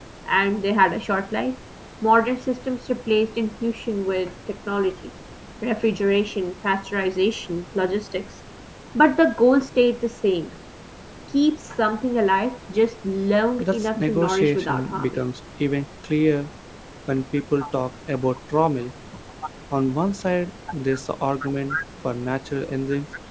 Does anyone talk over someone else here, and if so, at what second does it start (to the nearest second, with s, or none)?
14 s